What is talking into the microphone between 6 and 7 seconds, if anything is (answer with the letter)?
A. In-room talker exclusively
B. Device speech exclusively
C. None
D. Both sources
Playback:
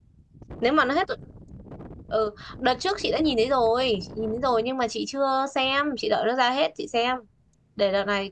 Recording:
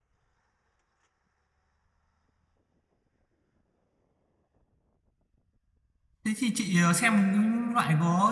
A